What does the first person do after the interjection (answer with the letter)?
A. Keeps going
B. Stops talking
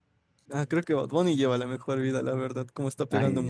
B